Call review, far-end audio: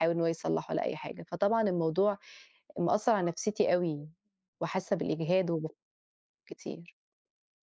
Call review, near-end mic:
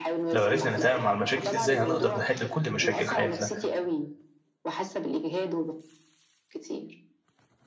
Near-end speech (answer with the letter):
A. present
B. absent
A